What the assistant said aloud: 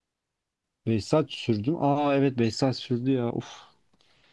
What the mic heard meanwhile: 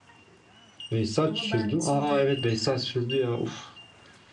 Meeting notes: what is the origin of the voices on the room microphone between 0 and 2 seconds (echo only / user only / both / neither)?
both